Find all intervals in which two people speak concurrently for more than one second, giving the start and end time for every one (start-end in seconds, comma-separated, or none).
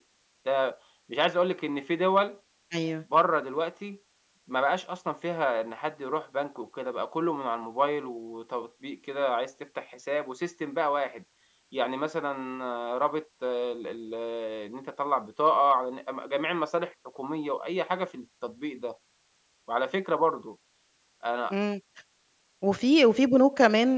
none